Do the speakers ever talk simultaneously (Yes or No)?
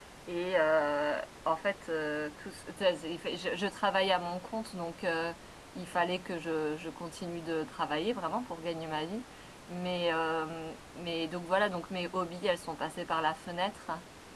No